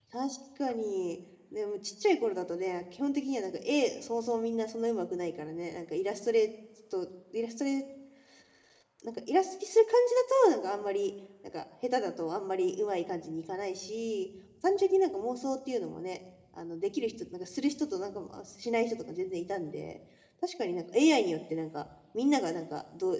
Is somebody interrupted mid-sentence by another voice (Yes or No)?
No